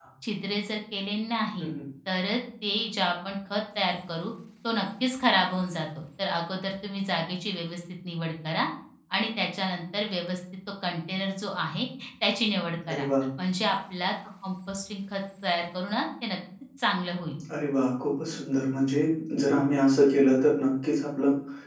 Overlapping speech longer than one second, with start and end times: none

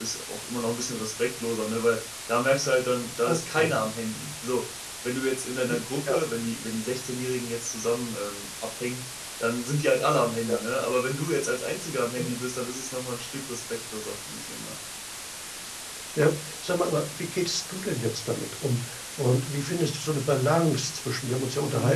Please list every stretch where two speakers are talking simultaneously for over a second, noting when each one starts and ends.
none

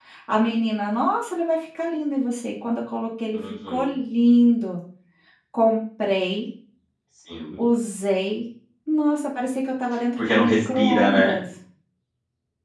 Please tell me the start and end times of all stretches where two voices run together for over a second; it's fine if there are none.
10.2-11.4

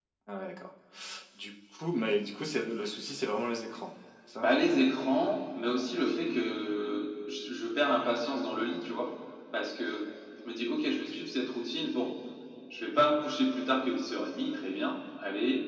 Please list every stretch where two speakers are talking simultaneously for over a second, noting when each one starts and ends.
none

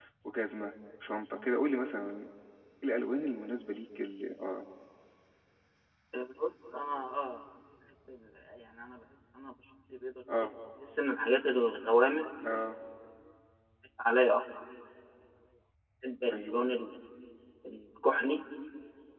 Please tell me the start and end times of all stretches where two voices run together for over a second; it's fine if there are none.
none

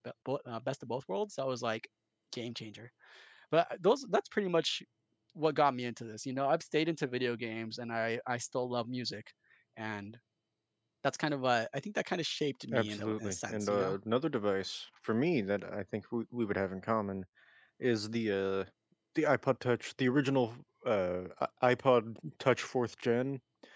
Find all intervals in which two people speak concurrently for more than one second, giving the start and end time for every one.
12.7-13.9

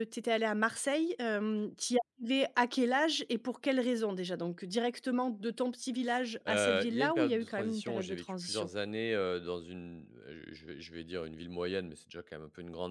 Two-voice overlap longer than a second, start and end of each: 6.5-8.7

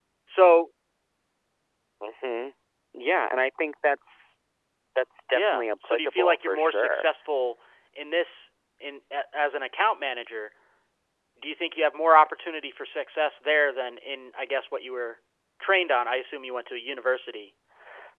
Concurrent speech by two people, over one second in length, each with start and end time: 5.3-7.1

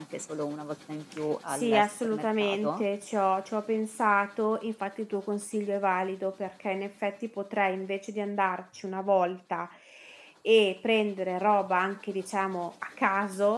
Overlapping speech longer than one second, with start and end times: 1.5-2.8

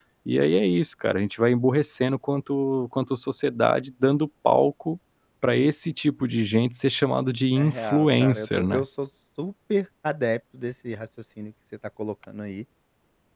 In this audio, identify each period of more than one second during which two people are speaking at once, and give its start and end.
7.6-8.8

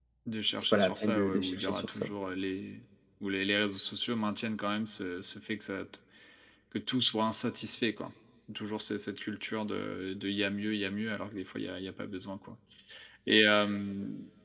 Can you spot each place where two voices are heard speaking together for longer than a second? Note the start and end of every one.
0.7-2.1

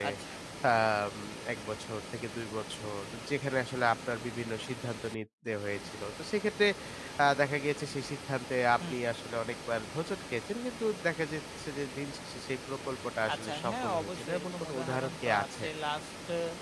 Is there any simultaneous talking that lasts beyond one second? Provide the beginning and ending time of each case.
13.3-15.6

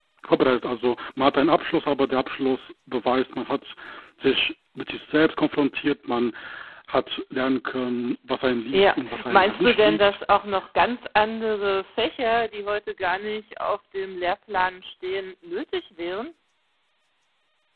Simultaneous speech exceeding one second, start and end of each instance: 8.7-10.2

